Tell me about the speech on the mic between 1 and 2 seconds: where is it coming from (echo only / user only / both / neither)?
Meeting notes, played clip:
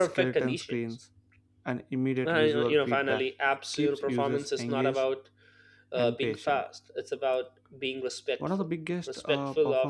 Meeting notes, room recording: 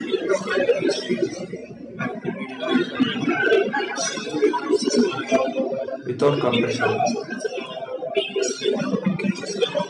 echo only